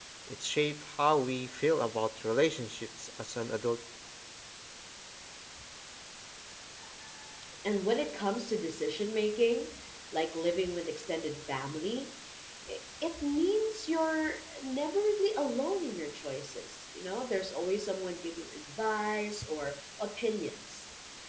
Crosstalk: none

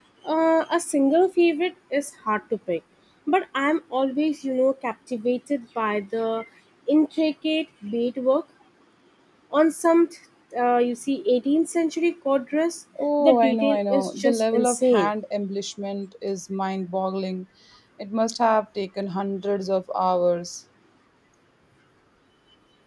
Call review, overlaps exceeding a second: present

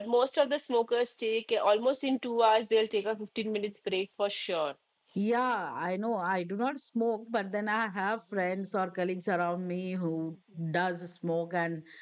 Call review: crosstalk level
none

